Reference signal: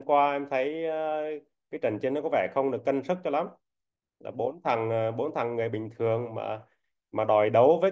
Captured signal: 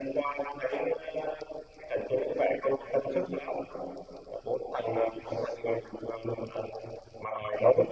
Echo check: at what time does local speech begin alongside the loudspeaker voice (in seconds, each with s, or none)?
none